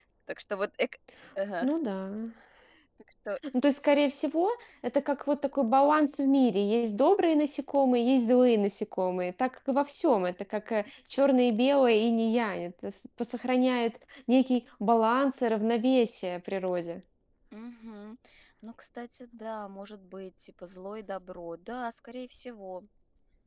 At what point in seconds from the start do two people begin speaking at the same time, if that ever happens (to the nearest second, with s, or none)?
none